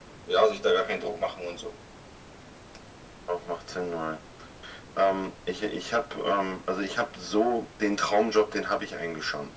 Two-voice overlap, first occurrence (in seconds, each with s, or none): none